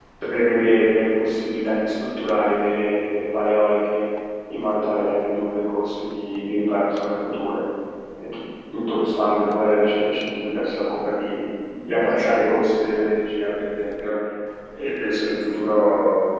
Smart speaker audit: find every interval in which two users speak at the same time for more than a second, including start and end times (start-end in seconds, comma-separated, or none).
none